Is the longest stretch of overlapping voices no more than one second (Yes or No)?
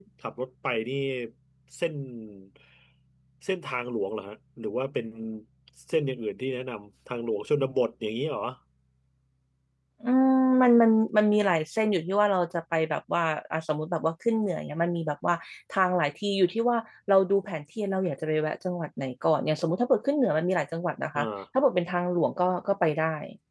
Yes